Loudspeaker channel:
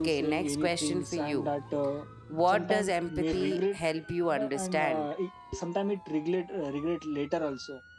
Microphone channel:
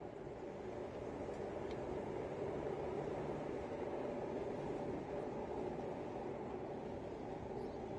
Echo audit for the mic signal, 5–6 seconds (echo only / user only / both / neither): neither